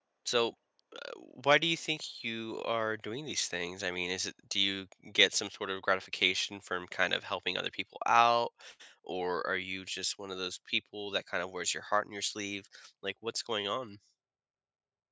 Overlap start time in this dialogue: none

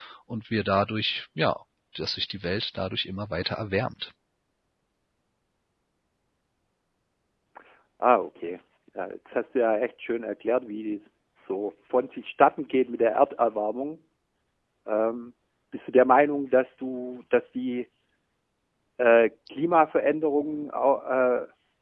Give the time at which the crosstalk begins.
none

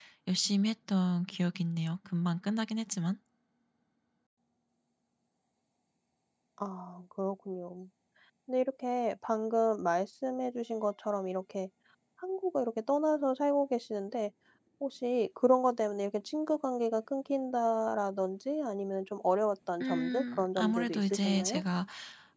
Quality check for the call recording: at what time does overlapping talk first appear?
20 s

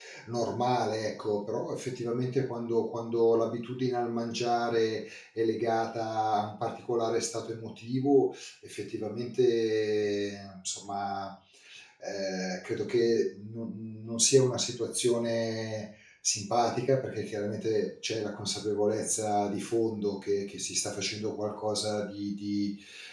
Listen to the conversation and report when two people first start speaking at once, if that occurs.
none

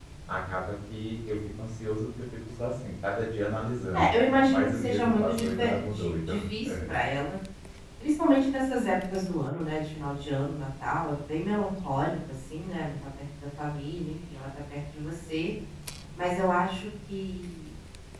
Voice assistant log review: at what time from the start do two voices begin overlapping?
4 s

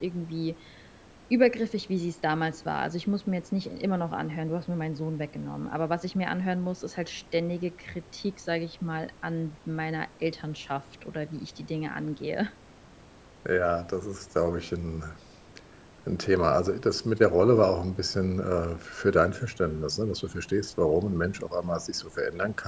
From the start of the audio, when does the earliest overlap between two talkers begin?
none

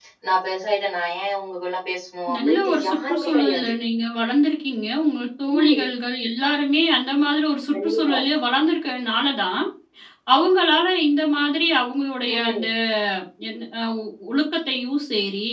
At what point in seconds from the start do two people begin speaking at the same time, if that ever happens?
2 s

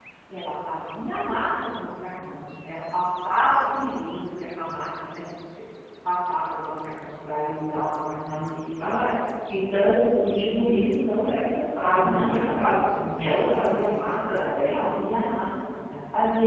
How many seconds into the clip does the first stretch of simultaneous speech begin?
12 s

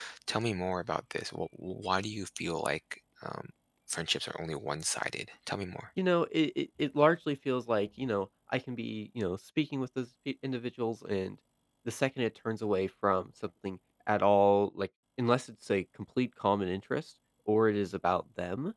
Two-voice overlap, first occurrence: none

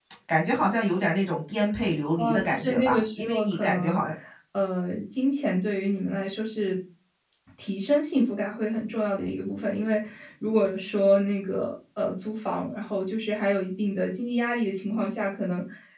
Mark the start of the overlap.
2 s

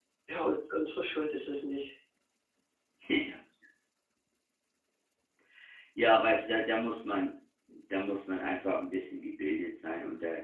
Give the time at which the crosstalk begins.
none

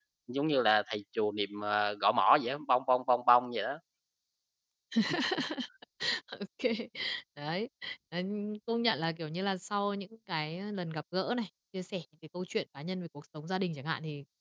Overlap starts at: none

